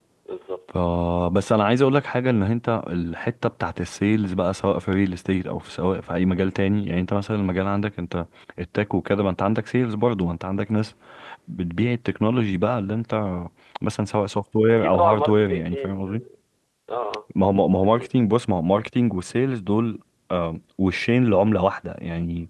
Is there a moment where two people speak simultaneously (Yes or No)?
Yes